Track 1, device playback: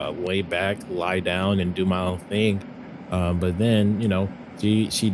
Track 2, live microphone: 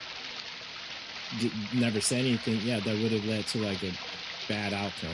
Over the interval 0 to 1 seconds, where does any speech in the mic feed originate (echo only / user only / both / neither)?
neither